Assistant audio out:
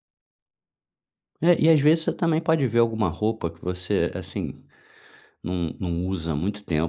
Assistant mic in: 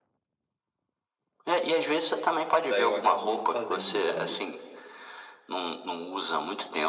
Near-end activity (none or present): present